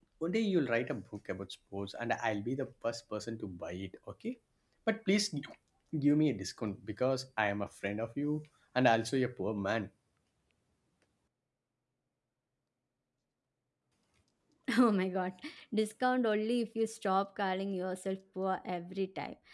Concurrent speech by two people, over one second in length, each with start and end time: none

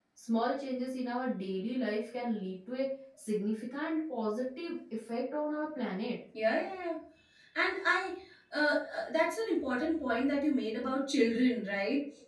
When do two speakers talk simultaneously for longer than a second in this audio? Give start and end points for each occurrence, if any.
none

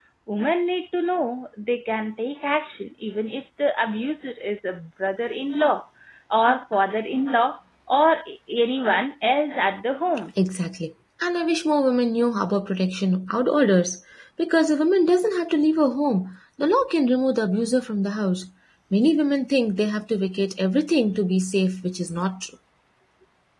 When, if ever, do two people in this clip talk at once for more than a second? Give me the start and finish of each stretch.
none

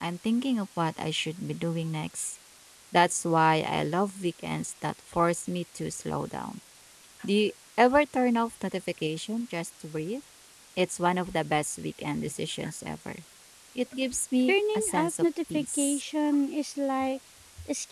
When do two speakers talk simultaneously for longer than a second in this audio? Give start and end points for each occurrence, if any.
14.5-16.0

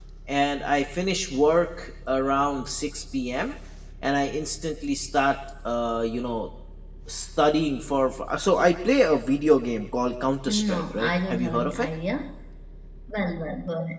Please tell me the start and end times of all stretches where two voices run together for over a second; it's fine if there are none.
10.5-11.9

